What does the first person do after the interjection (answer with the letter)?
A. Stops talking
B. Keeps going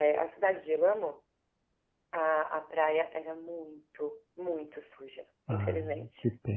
A